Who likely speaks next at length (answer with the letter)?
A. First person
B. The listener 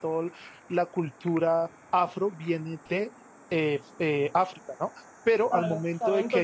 B